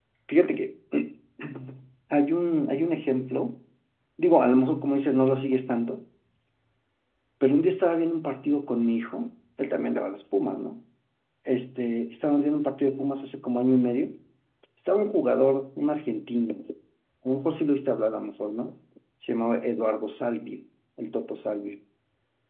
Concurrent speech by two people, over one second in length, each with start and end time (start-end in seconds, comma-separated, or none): none